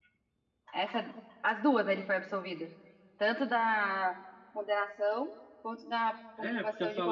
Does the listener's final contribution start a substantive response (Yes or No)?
Yes